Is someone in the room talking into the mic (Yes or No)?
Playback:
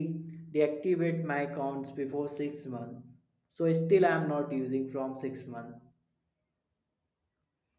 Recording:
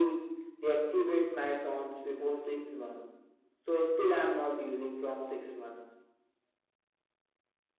No